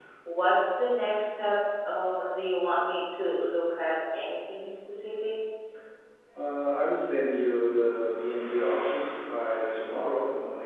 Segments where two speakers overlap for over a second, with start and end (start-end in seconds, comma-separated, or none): none